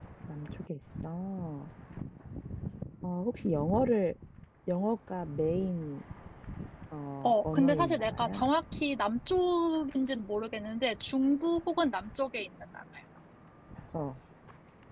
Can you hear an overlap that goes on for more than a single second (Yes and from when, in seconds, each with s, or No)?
Yes, from 7.2 s